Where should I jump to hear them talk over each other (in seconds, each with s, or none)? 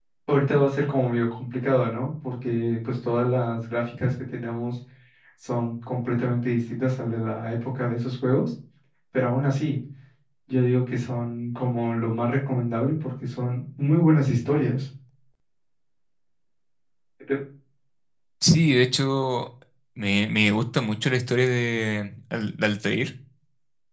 none